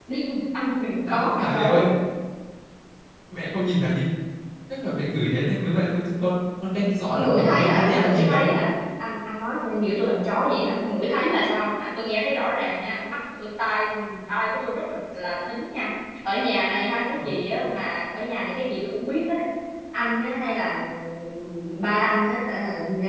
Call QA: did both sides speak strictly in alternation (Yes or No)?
No